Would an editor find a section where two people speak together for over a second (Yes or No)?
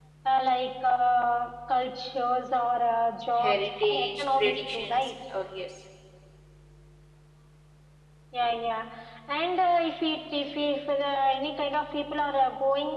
Yes